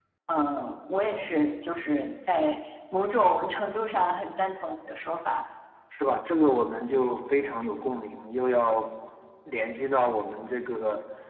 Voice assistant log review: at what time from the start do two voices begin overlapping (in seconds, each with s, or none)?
none